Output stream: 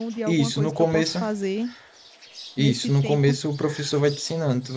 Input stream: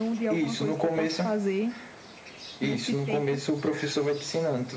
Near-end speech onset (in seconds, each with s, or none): none